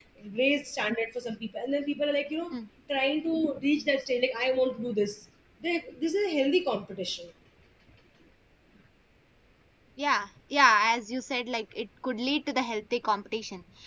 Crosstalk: none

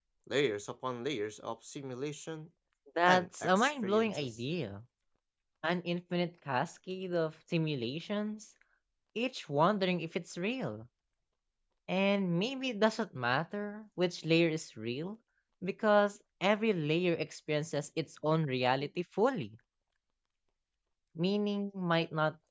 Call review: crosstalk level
present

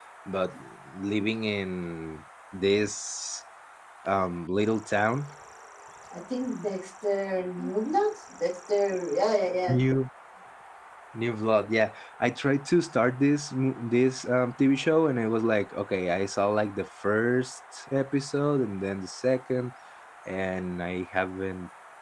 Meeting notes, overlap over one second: none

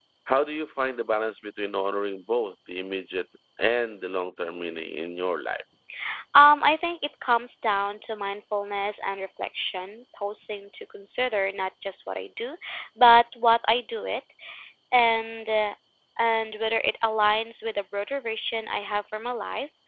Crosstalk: none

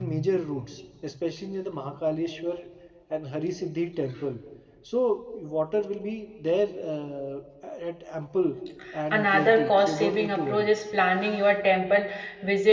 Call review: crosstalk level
present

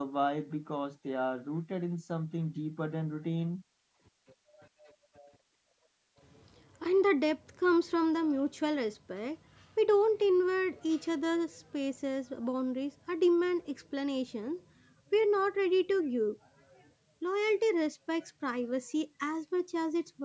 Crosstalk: none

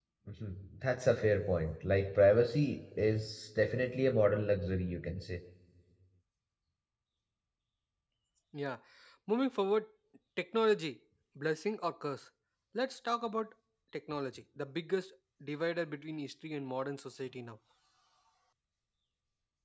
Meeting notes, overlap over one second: none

